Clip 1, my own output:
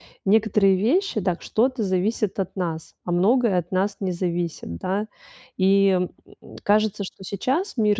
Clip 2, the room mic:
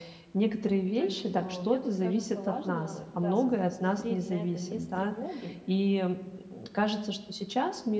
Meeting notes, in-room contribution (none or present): present